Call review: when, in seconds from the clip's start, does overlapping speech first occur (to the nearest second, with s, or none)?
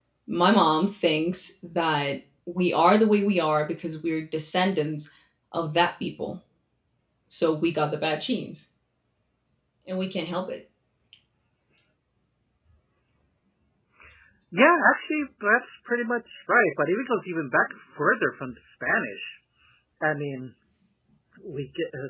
none